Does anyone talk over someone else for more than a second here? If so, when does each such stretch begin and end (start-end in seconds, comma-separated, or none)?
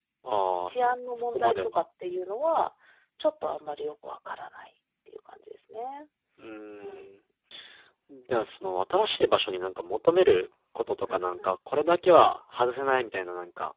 0.6-1.8